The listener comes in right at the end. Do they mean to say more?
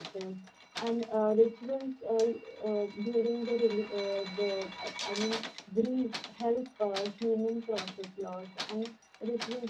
No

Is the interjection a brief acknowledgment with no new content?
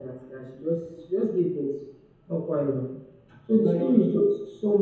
Yes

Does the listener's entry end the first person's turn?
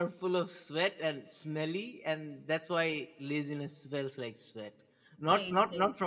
No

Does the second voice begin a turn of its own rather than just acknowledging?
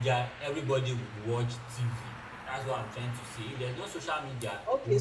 Yes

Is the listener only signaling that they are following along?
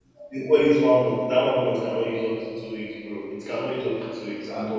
No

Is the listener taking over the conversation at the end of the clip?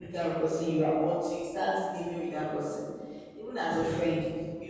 No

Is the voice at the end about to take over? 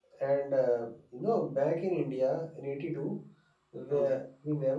No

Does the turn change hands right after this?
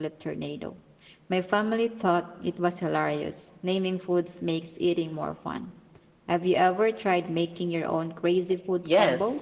Yes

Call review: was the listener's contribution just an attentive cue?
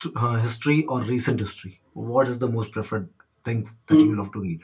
No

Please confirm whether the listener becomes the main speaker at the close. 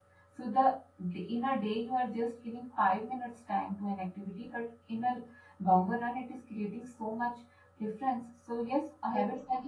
Yes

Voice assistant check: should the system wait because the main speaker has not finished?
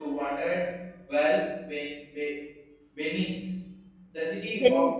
Yes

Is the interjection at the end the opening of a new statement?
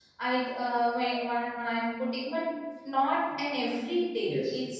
No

